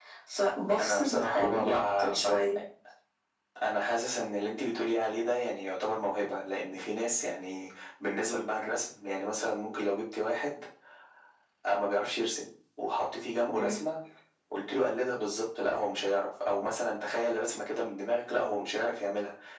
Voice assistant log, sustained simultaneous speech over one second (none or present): present